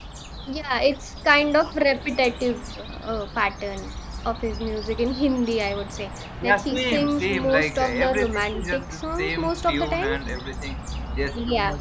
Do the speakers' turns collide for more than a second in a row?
Yes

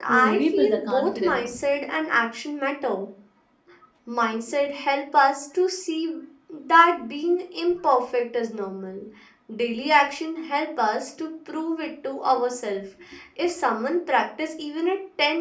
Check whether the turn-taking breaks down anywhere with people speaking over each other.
Yes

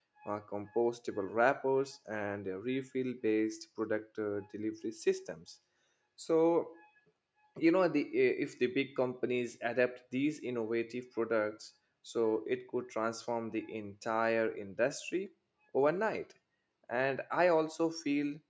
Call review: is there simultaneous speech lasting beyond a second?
No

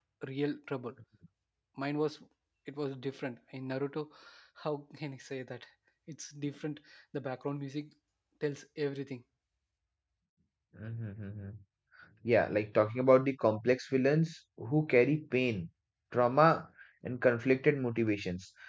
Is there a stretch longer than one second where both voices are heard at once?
No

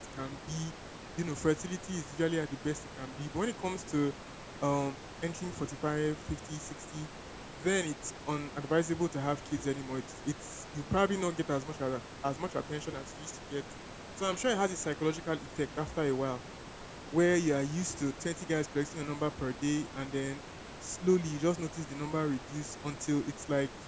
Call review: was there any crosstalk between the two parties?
No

